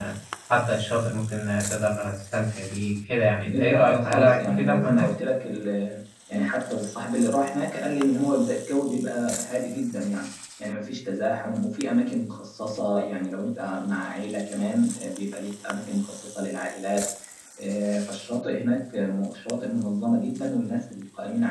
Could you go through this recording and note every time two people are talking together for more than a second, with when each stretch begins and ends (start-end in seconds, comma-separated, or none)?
3.5-5.1